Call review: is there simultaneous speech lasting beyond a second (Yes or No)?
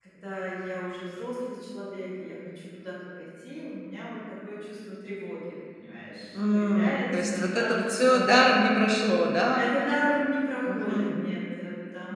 Yes